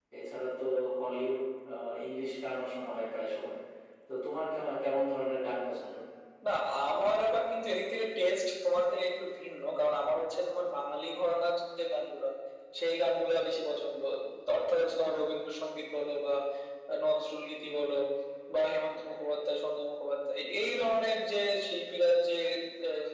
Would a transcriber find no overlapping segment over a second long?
Yes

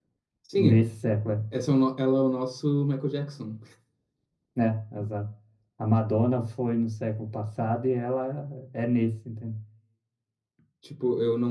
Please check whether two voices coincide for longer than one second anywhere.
No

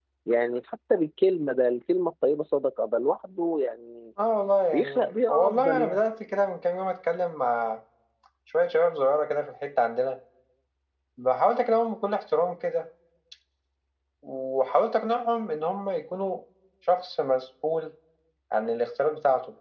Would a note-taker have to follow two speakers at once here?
Yes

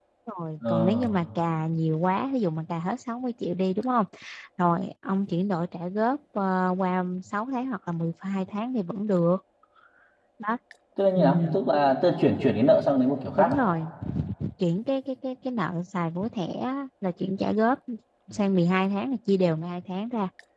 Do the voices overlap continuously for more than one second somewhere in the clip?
No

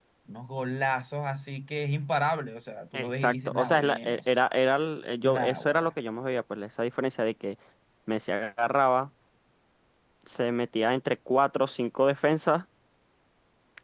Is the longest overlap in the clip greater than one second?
Yes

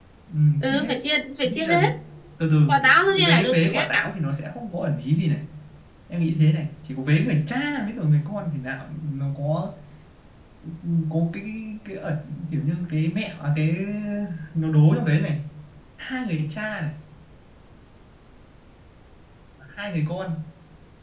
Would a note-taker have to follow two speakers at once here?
Yes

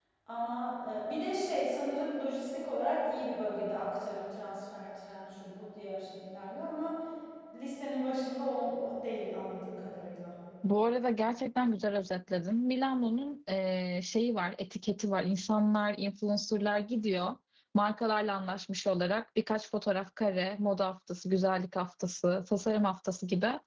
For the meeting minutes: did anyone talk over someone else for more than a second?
No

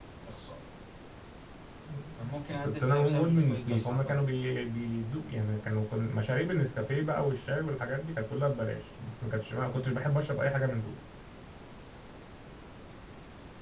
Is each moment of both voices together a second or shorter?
No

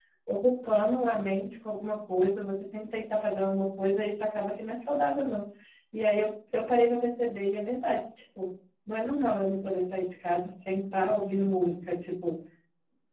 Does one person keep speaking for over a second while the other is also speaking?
No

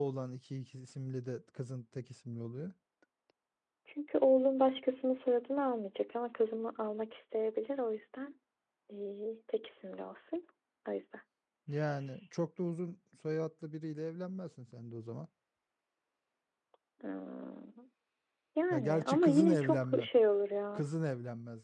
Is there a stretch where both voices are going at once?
Yes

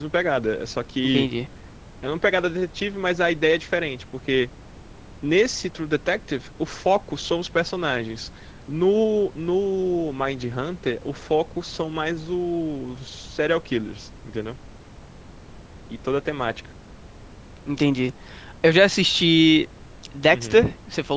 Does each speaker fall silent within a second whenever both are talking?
Yes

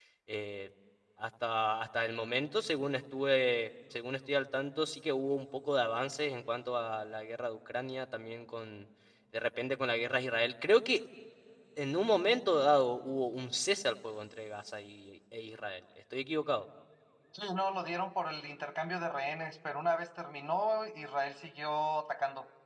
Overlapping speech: No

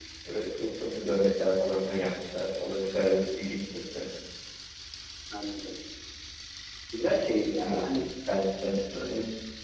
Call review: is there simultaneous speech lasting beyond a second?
No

